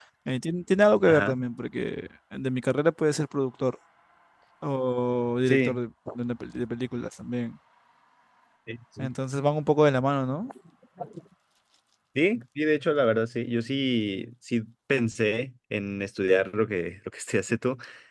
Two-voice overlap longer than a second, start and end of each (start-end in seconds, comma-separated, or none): none